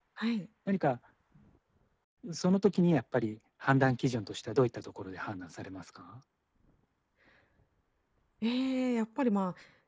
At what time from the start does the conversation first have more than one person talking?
none

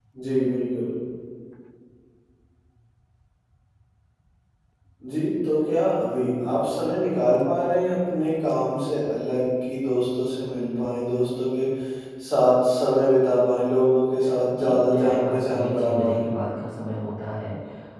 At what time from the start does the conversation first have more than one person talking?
14.5 s

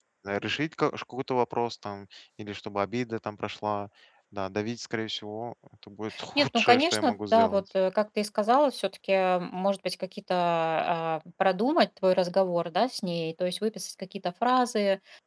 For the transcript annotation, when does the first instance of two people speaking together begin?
6.3 s

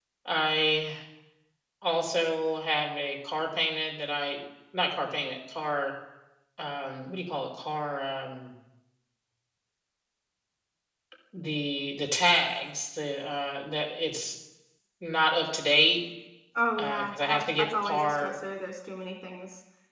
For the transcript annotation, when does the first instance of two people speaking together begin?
16.8 s

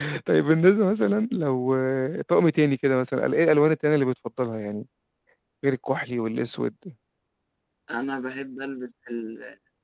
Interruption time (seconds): none

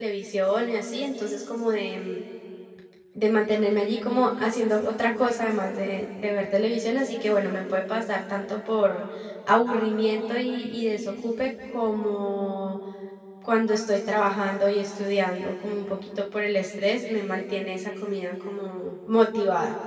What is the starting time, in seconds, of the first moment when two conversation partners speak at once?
none

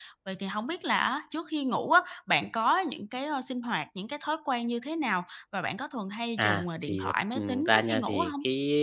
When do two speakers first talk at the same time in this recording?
6.4 s

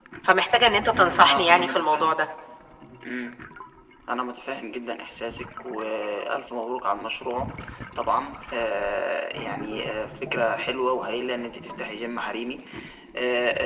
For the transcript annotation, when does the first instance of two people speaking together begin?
0.9 s

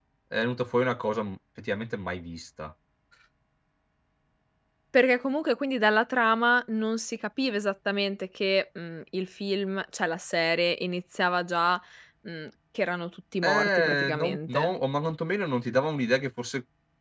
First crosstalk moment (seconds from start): 13.4 s

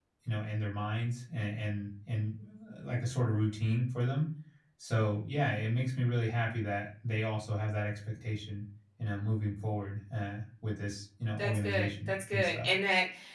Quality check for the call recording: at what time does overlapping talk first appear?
11.4 s

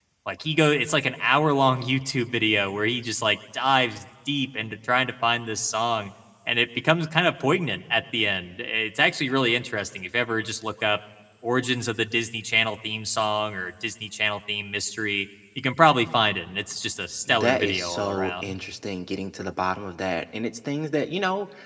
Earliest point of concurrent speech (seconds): 17.3 s

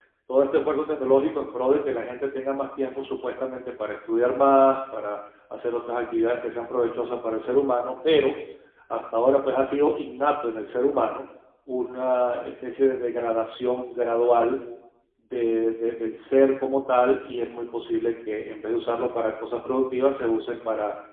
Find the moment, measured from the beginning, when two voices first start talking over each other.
none

